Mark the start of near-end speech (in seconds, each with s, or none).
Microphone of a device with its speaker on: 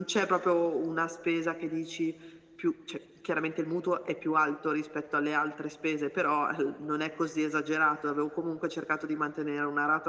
none